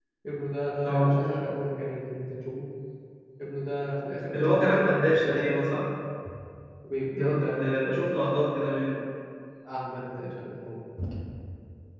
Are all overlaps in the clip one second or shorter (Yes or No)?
No